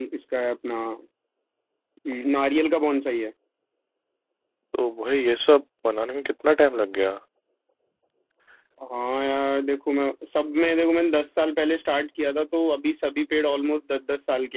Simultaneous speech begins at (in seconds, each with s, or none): none